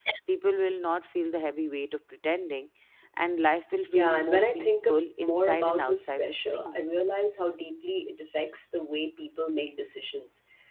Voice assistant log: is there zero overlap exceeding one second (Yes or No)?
No